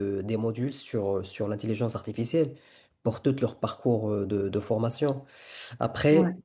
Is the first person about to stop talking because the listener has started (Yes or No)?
No